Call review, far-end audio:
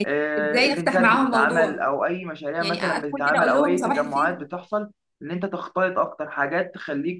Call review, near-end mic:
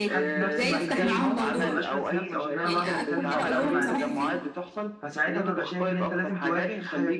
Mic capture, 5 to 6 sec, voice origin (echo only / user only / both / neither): both